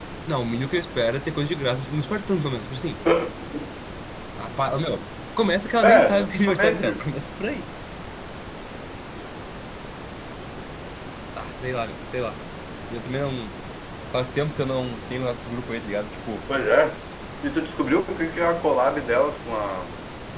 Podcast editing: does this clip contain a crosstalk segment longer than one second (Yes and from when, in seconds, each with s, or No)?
Yes, from 5.8 s